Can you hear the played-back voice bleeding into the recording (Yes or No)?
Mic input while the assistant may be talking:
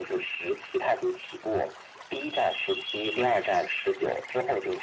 Yes